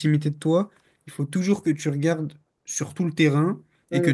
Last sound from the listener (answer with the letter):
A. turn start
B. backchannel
B